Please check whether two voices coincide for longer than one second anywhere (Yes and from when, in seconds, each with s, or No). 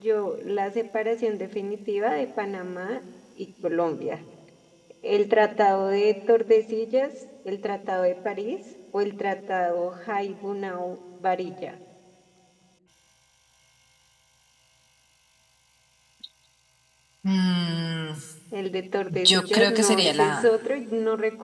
Yes, from 19.1 s